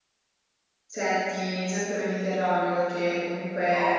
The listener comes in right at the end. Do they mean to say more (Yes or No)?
No